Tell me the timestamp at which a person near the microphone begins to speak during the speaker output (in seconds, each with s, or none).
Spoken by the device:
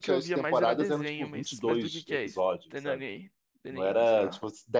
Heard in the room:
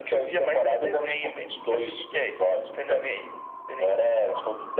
none